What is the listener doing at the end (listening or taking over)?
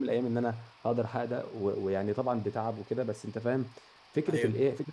listening